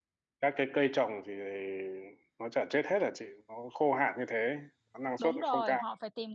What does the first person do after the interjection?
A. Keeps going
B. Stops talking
B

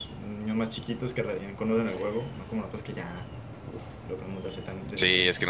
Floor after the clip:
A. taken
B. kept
A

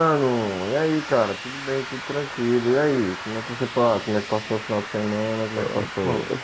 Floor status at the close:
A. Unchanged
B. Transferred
B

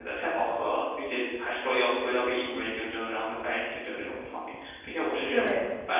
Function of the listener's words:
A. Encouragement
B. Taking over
A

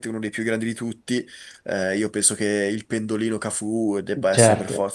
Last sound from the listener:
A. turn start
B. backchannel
A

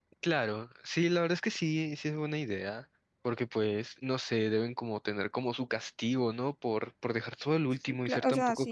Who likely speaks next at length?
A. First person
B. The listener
B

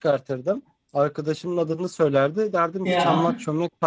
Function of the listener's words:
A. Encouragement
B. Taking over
A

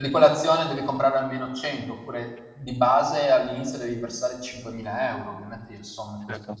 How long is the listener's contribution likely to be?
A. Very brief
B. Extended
A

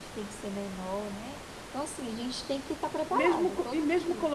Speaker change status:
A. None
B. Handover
B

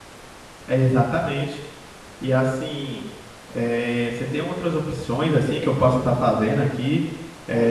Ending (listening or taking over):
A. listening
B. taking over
B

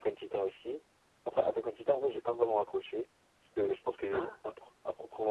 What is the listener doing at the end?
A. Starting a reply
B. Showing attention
B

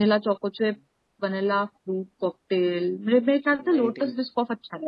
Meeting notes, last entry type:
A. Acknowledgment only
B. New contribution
A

